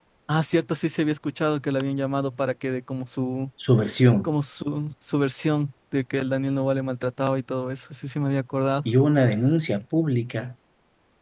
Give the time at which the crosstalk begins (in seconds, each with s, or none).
none